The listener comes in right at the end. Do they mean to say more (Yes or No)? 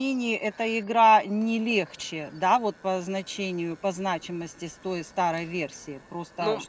Yes